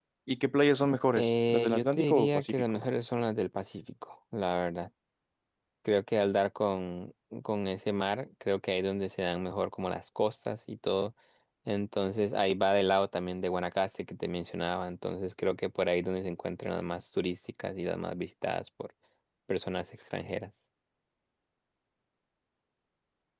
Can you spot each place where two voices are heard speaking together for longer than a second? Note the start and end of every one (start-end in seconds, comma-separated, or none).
1.2-2.8